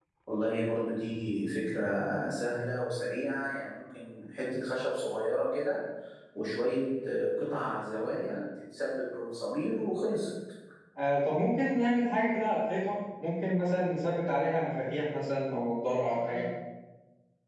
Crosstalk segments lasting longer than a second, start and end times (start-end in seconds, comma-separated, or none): none